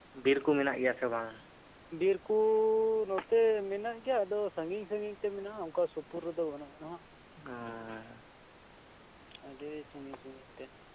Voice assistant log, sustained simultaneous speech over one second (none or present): none